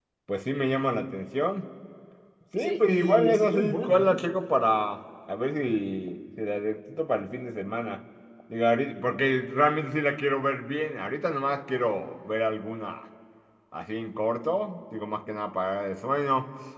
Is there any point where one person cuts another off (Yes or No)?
Yes